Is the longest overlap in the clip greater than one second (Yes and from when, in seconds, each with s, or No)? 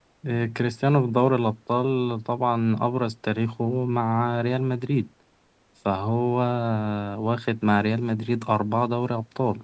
No